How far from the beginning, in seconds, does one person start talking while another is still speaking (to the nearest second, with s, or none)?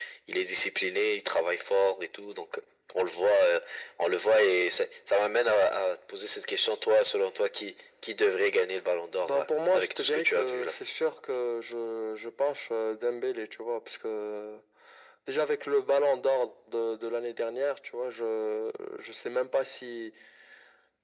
9 s